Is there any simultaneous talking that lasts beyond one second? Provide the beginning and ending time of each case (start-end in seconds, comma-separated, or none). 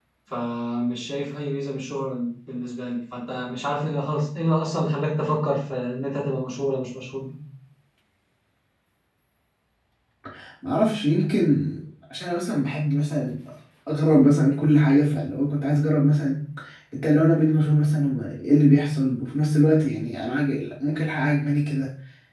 none